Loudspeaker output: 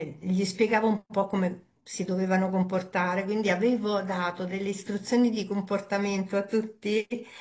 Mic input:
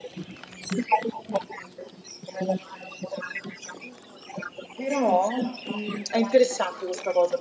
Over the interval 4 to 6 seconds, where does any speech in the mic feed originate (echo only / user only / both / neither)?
both